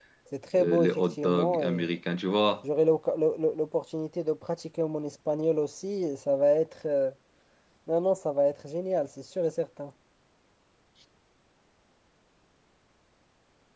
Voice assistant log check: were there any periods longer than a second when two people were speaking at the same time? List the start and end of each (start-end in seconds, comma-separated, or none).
0.6-1.9